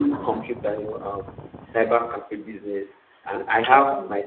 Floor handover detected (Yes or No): No